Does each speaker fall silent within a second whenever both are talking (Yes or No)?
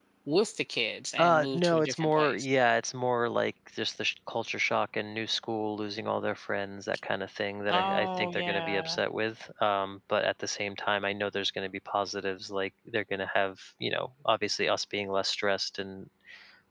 No